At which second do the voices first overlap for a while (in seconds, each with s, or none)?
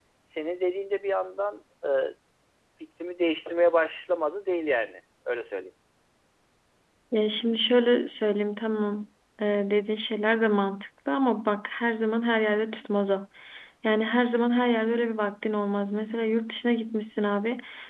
none